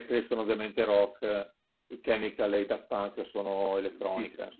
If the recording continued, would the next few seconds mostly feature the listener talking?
Yes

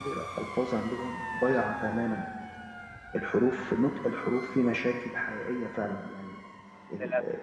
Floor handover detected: No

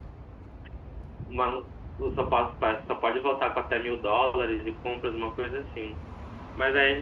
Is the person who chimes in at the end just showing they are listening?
Yes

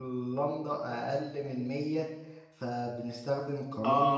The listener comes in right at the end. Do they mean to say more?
Yes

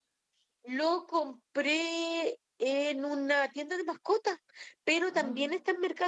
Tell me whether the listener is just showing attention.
Yes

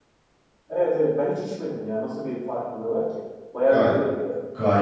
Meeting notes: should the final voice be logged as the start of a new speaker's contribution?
Yes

